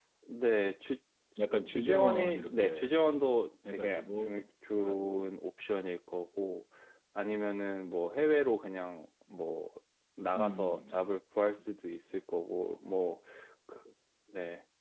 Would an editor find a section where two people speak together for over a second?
Yes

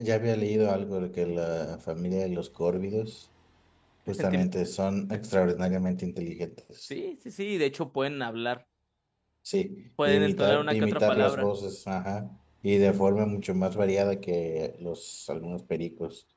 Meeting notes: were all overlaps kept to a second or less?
No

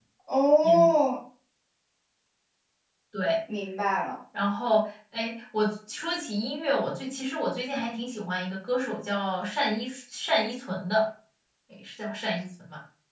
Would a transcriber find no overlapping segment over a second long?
Yes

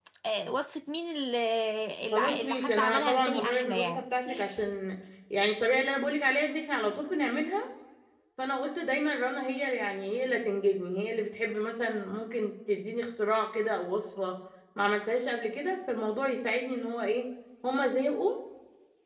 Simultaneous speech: Yes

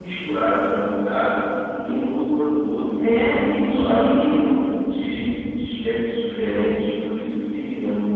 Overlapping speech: Yes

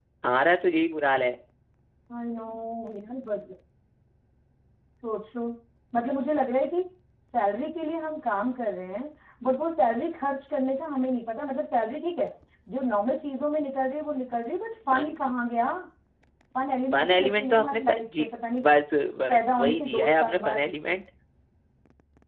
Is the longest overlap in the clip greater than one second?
Yes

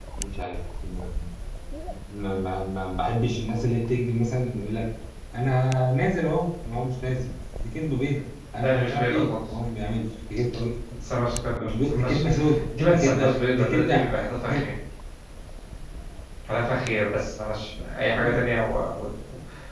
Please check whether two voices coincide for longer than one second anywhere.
Yes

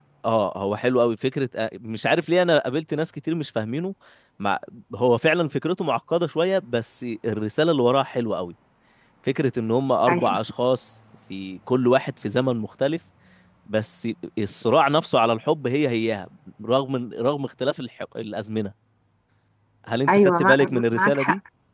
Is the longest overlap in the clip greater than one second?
Yes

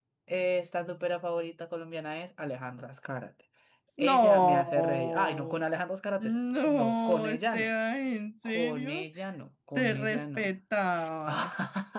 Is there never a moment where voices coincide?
No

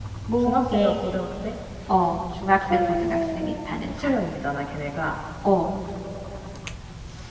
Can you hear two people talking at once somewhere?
Yes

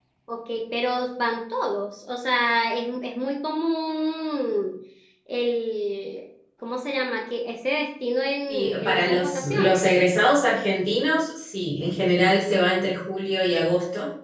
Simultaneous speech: Yes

